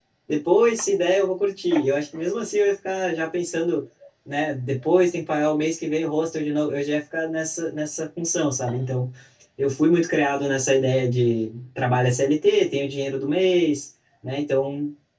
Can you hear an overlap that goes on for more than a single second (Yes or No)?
No